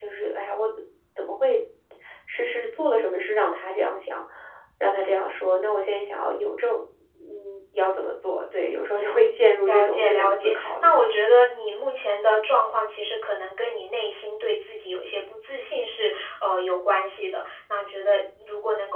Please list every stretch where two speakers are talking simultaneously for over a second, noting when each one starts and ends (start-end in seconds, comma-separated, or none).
8.6-10.9